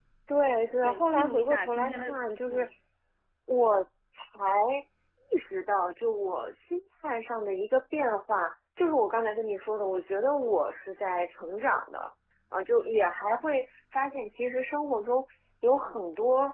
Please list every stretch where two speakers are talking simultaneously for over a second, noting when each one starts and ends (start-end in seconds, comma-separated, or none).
0.8-2.1